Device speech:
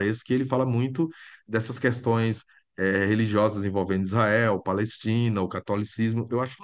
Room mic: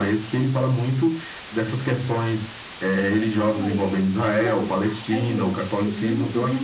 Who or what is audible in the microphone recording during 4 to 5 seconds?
both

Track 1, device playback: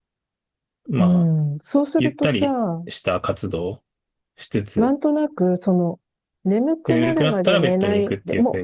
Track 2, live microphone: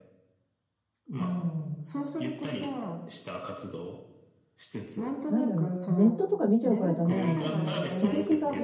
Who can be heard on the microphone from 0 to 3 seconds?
echo only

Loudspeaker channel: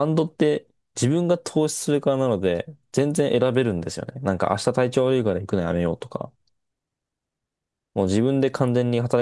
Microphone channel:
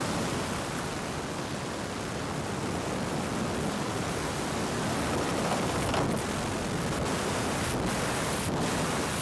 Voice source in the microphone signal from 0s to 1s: neither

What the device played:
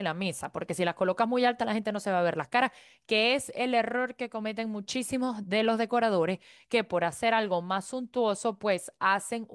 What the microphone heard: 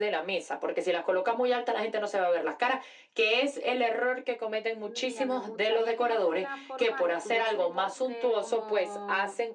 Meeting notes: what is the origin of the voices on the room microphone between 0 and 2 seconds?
echo only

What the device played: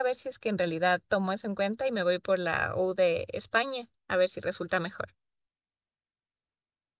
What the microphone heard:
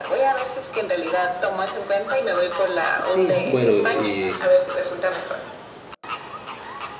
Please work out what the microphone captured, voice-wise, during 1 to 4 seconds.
both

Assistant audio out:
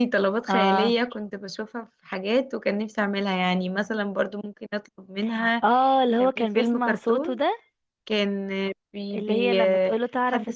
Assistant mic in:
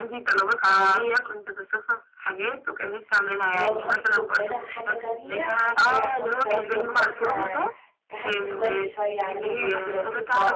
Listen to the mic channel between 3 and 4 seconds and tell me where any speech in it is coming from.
both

